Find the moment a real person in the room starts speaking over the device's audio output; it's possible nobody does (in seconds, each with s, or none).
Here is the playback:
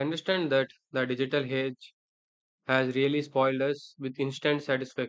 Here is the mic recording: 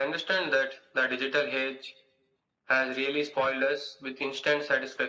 none